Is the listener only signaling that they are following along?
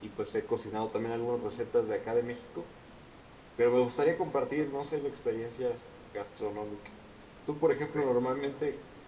Yes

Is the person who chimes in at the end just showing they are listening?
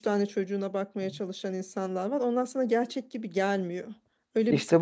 No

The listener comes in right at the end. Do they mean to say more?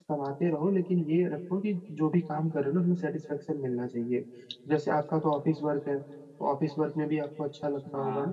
No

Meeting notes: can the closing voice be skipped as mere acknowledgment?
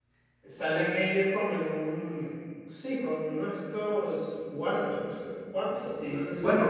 No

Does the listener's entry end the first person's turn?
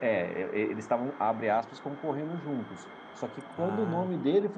No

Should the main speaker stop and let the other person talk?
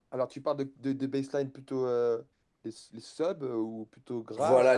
Yes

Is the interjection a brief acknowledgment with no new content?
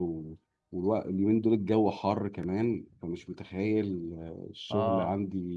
Yes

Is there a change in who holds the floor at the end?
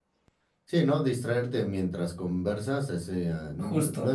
No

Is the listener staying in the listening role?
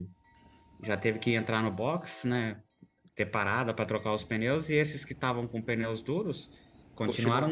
Yes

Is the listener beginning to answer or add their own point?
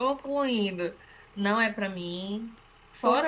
No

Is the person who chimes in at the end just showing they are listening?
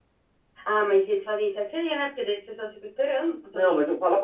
No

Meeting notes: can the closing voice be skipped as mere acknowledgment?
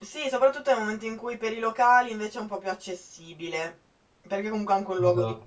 Yes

